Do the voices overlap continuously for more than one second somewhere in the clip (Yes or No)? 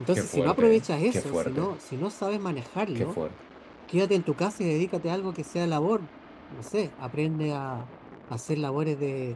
Yes